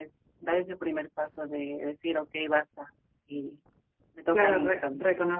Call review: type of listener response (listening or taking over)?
taking over